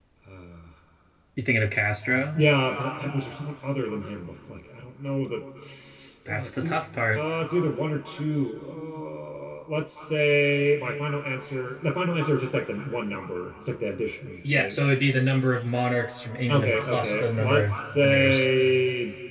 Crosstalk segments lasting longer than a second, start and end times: 16.5-18.5

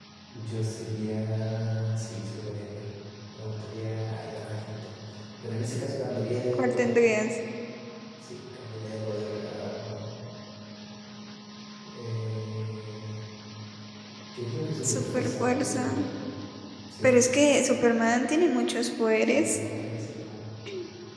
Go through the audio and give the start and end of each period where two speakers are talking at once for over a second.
14.8-16.0

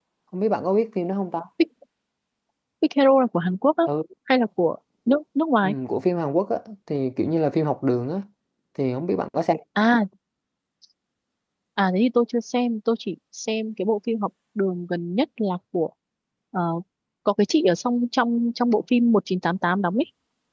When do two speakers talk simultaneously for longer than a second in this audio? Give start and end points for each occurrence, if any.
none

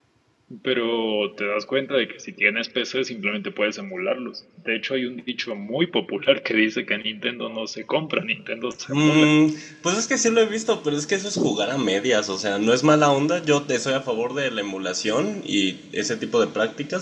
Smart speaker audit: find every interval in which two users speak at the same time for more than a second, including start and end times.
none

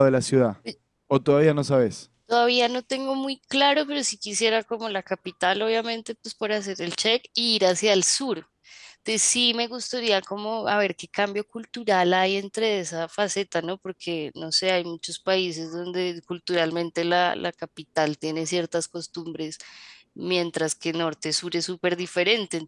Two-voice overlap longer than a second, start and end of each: none

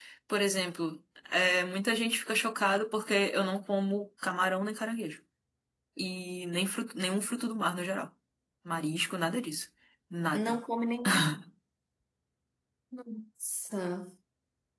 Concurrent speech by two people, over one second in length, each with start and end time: none

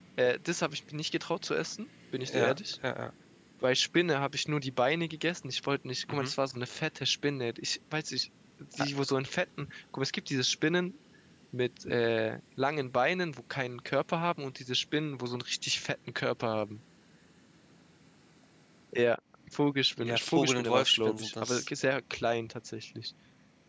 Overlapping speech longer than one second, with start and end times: 20.0-21.7

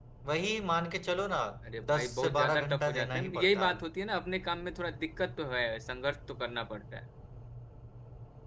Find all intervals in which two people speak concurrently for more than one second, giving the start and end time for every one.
1.9-3.7

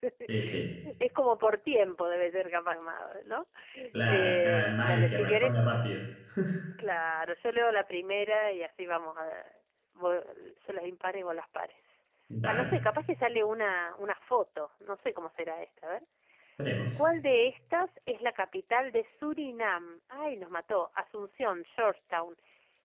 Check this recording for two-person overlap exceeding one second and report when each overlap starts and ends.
4.1-5.5

